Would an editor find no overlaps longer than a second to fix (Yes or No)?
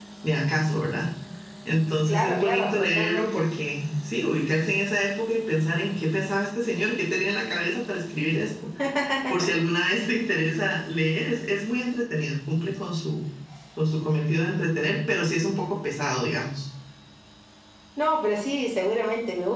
No